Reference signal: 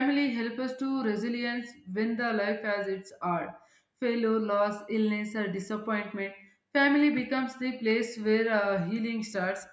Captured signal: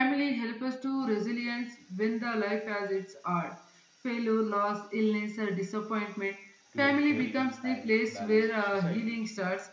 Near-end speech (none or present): present